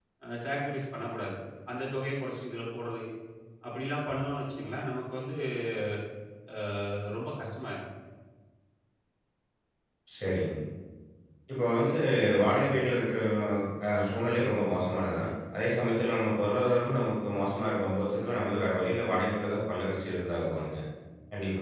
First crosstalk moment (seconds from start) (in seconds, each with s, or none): none